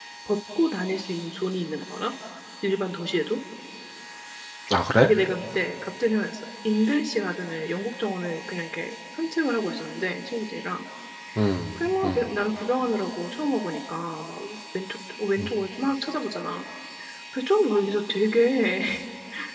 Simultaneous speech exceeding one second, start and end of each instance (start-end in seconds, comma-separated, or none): none